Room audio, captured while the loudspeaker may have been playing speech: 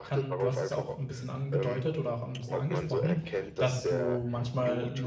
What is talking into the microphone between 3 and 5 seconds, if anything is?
both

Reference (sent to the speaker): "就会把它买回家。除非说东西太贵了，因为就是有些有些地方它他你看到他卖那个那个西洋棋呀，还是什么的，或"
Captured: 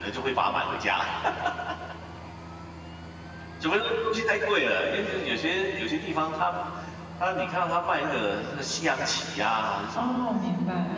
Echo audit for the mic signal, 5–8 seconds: echo only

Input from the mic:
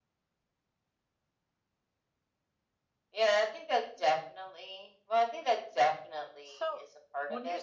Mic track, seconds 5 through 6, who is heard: echo only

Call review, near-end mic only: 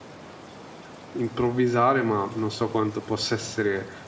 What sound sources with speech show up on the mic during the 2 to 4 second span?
user only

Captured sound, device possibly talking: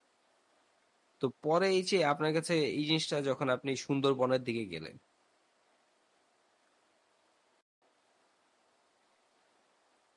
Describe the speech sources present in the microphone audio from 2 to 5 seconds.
user only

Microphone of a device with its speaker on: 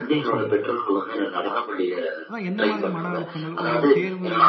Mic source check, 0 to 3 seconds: both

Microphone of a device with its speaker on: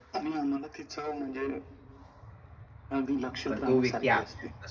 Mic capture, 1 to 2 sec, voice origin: echo only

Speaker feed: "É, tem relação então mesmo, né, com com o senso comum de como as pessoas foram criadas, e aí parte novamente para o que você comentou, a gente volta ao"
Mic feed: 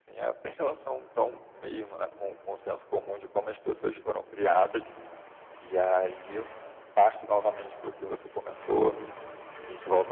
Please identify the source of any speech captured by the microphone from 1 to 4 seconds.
echo only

